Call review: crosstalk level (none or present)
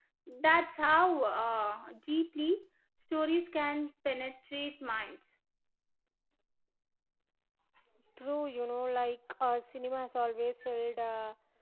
none